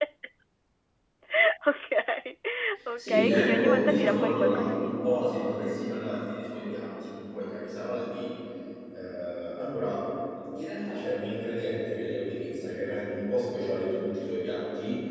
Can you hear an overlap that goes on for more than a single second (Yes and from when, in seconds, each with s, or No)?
Yes, from 3.0 s